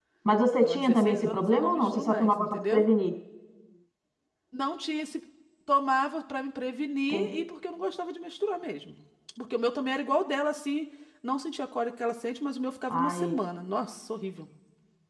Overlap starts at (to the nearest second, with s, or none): 1 s